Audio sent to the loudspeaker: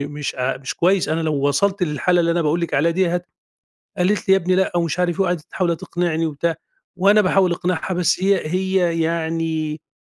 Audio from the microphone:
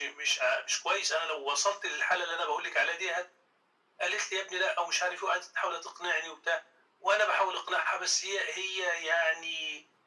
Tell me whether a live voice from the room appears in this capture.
No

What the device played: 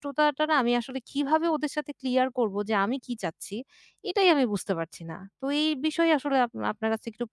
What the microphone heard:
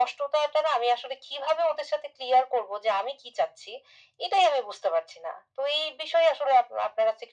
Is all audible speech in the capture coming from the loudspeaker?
Yes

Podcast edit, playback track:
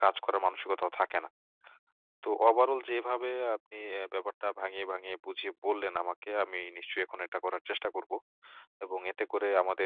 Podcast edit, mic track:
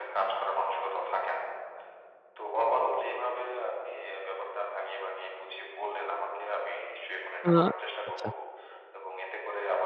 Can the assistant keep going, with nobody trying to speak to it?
No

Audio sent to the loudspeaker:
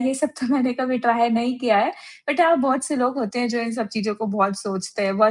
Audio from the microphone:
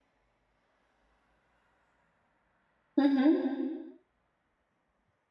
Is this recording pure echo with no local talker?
No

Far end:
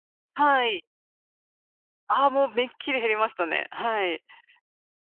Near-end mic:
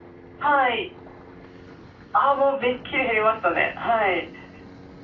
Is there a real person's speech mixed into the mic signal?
No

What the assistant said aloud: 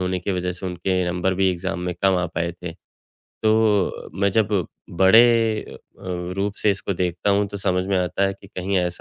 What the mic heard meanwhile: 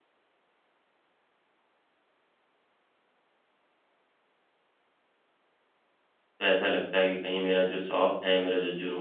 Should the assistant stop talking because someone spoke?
Yes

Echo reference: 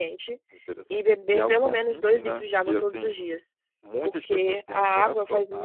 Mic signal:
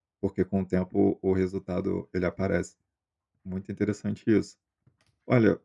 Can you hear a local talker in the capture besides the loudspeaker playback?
Yes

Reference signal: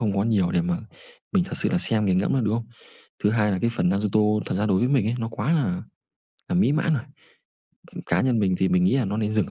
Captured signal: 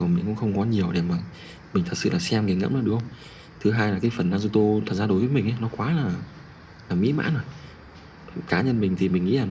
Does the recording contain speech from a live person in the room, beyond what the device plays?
No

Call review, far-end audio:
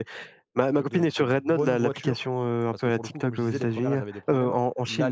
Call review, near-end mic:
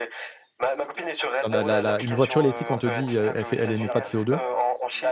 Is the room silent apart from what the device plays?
No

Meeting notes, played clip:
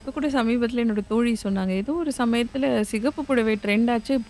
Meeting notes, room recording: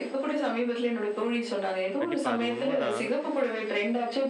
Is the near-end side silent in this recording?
No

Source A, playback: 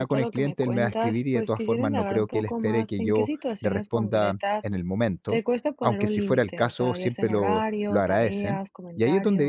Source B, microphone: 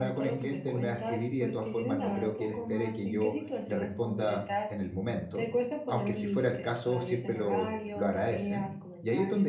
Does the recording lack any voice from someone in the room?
Yes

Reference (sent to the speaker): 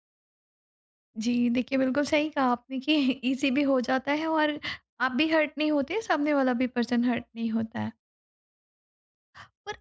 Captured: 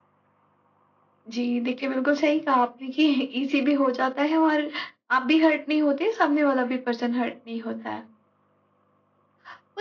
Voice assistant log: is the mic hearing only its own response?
Yes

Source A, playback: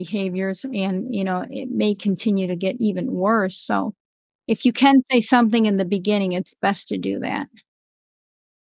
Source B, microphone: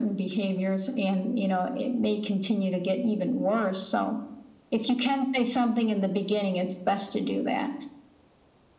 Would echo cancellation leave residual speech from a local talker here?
No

